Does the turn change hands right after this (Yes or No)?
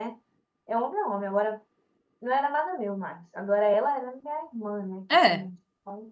No